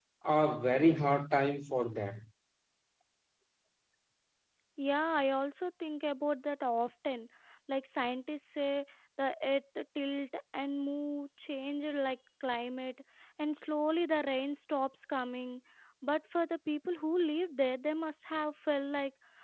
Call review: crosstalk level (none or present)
none